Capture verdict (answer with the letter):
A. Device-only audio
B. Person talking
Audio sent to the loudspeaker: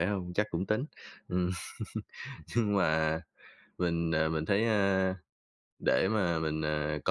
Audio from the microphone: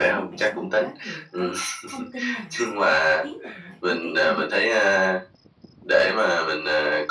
B